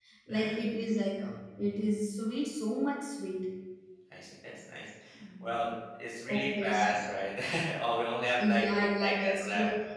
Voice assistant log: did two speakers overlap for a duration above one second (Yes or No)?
Yes